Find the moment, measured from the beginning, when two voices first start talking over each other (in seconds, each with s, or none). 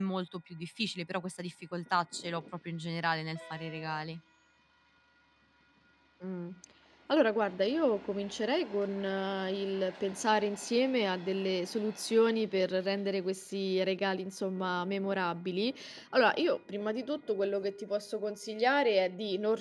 none